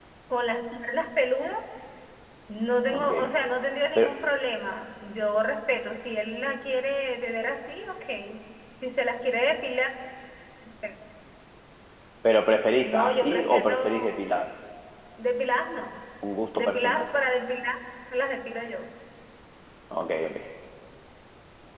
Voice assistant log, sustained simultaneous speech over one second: present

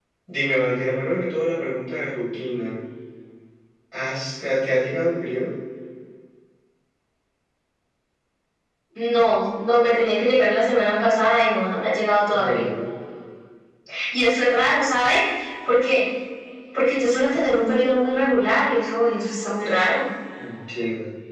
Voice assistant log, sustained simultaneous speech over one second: none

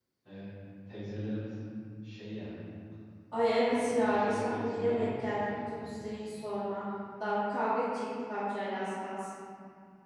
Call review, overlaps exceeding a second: present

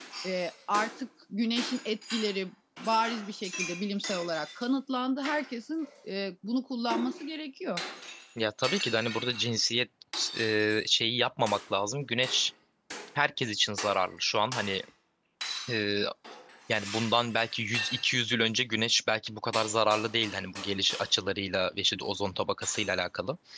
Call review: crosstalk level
none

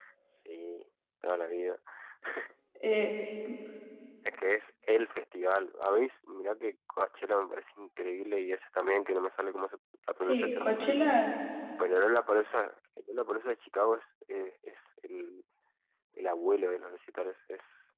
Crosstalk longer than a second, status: none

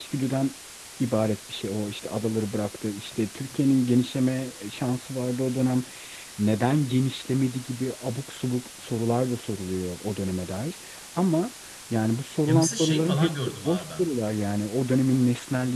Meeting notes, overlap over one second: present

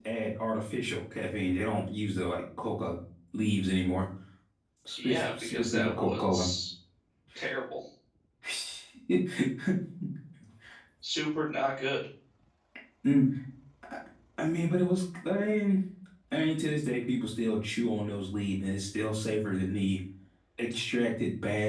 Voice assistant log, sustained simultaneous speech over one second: present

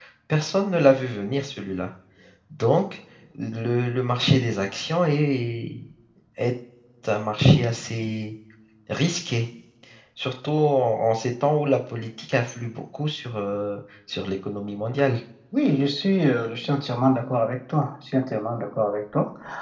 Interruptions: none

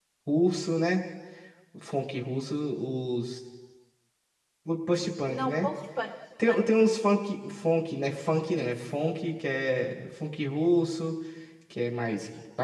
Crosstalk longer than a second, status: none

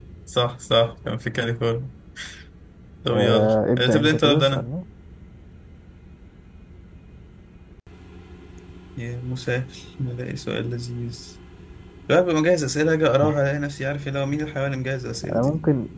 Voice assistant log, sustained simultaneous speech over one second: present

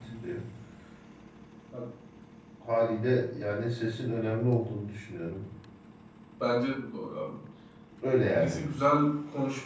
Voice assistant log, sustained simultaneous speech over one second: none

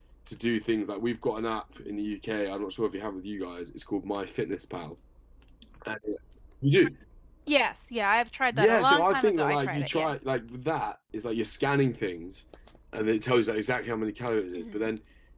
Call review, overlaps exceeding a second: present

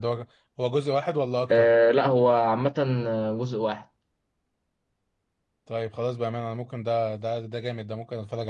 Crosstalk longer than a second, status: none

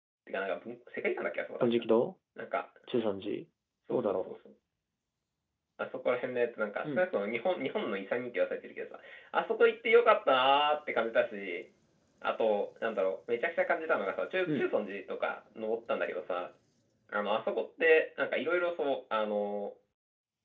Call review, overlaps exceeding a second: none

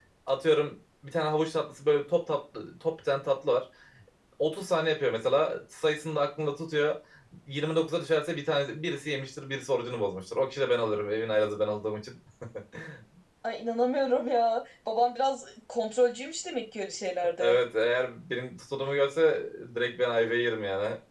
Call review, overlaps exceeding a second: none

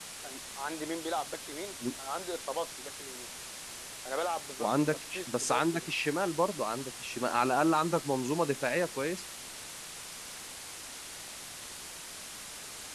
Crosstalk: present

